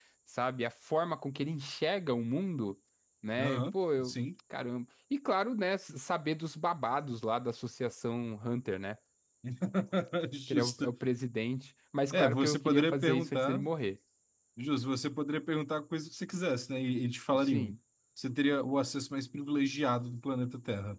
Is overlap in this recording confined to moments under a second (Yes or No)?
No